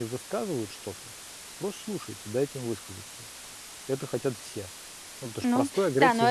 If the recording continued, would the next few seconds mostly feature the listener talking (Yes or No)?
Yes